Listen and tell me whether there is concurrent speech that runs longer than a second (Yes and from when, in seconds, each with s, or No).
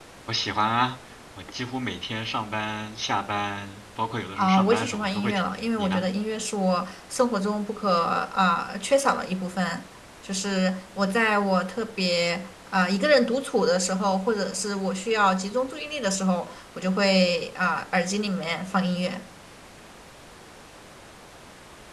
Yes, from 4.4 s